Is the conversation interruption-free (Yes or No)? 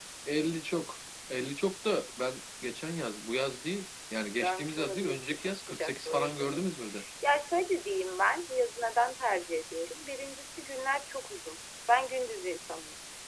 No